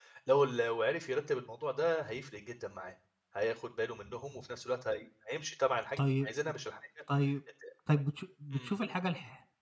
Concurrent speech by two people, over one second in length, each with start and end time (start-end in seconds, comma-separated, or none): none